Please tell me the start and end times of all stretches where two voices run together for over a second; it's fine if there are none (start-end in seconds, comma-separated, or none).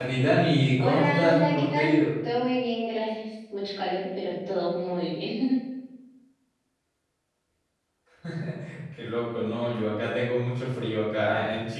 0.8-2.0